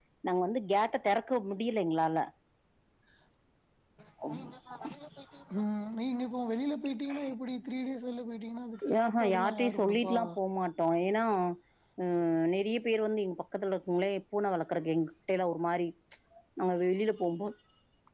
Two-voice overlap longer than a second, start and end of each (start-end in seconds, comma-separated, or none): 8.9-10.2